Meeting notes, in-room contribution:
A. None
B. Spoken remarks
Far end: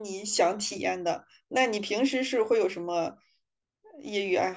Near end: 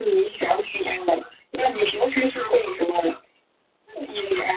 A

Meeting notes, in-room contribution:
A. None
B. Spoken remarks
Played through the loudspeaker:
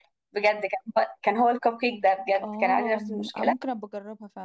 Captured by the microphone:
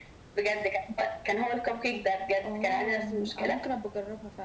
A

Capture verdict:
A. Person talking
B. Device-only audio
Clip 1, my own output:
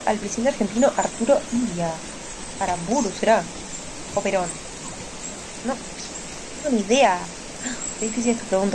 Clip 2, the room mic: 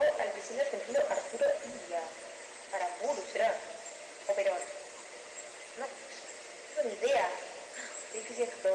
B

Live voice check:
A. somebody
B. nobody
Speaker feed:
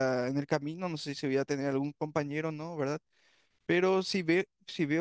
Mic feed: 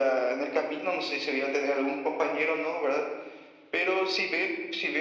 B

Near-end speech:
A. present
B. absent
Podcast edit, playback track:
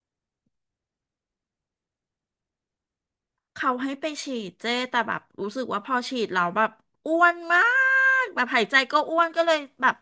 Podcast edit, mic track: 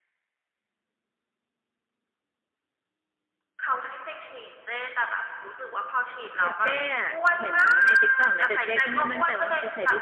A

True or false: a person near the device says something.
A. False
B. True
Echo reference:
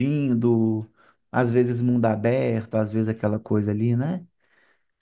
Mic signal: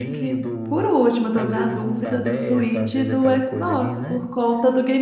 B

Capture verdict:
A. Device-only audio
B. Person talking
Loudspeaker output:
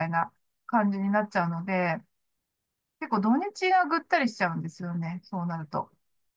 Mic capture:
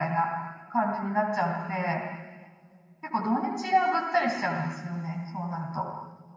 A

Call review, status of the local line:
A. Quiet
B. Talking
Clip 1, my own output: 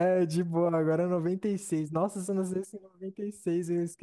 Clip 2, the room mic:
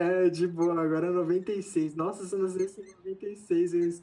A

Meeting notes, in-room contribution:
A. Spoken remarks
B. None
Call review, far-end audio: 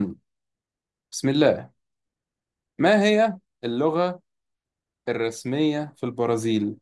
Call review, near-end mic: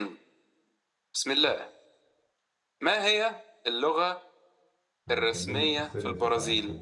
A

